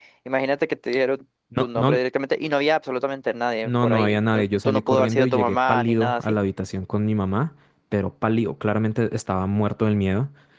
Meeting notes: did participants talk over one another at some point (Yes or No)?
Yes